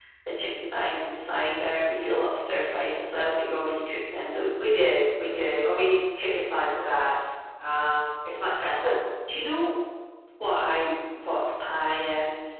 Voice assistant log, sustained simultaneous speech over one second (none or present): none